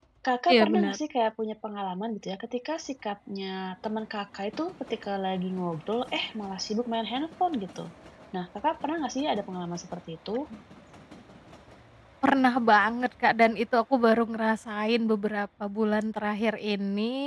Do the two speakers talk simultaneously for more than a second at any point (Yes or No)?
No